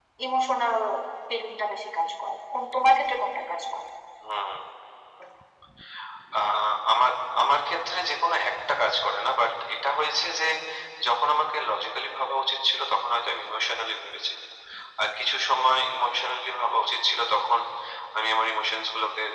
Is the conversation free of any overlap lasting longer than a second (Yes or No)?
Yes